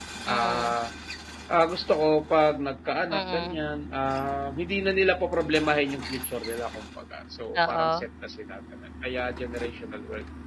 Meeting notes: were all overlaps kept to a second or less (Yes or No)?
Yes